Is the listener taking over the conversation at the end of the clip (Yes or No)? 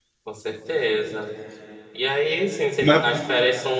No